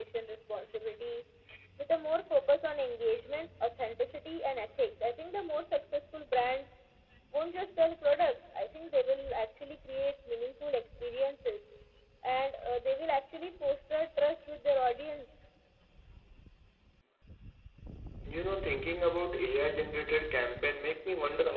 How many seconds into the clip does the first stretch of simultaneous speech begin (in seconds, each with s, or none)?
none